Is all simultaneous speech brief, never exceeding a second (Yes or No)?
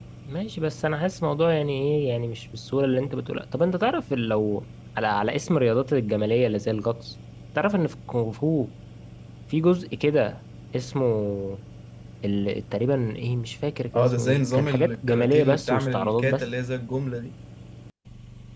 No